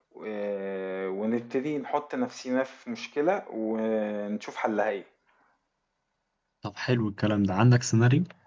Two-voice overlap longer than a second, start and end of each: none

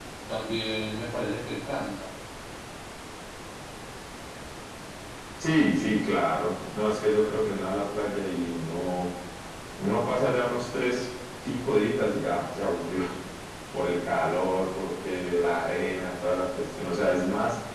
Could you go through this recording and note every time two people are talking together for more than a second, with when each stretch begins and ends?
none

